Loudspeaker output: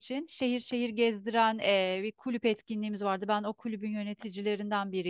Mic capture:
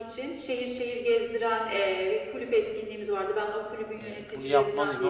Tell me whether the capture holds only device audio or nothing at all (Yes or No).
No